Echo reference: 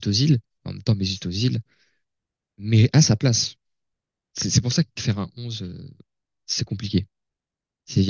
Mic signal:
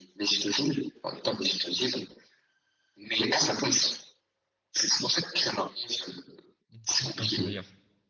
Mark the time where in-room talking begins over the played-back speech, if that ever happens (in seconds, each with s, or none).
6.7 s